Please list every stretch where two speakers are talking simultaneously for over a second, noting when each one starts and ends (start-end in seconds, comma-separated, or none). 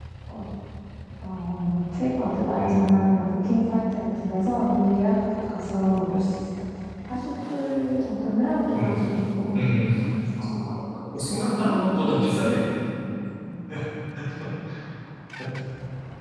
11.2-12.5